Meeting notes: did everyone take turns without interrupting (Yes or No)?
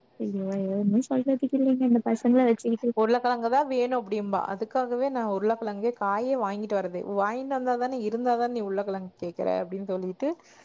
Yes